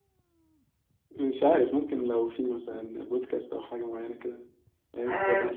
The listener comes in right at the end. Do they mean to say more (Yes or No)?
Yes